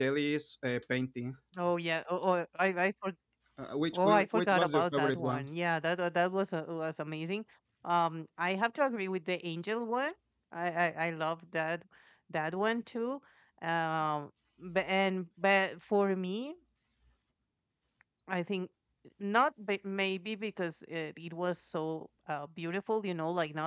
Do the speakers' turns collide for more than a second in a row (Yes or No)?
Yes